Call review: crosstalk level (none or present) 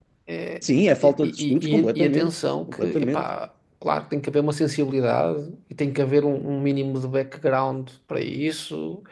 present